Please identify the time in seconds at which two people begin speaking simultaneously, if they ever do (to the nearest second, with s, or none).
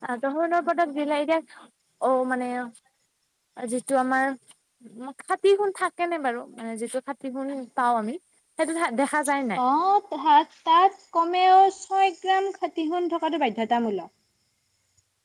none